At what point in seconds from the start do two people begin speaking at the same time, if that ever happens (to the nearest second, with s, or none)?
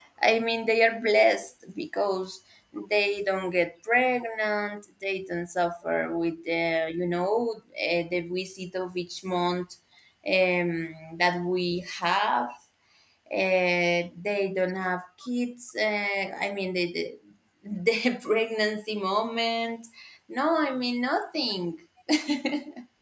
none